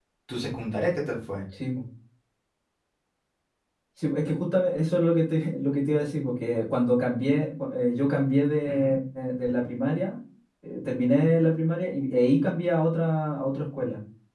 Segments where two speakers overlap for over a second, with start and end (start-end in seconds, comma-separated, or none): none